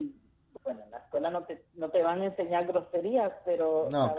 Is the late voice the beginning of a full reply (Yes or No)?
No